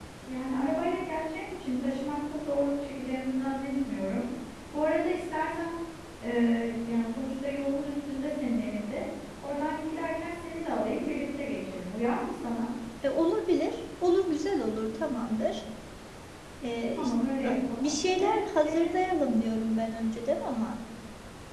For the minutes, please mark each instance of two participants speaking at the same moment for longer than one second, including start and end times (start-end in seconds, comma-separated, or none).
17.0-18.9